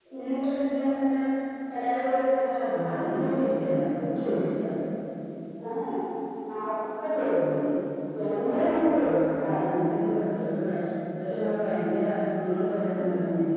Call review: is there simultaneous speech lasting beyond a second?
No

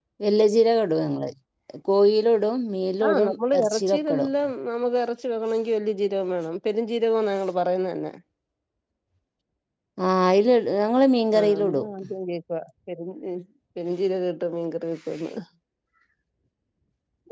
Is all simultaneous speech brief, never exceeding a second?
No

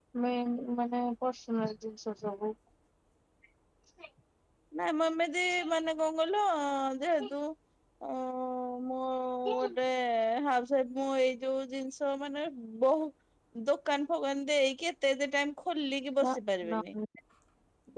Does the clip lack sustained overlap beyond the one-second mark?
Yes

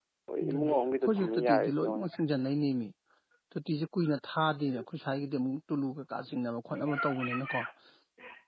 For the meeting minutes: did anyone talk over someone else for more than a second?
Yes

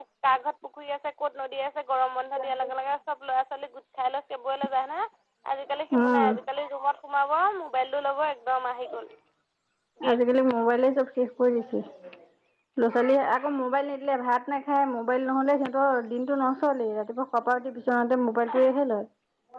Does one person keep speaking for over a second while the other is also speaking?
No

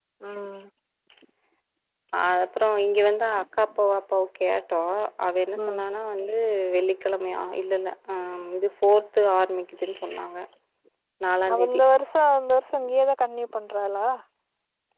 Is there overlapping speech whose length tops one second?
No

